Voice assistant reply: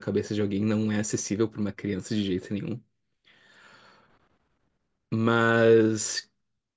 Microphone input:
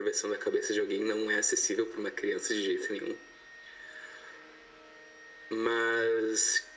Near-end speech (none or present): none